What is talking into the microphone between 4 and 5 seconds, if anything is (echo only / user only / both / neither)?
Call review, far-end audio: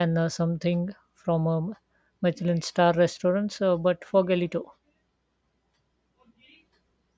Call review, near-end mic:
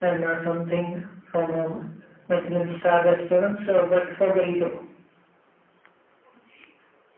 echo only